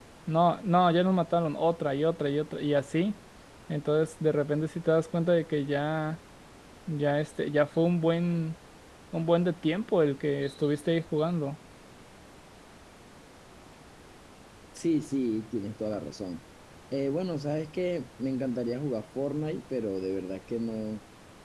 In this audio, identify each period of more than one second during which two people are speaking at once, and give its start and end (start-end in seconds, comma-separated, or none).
none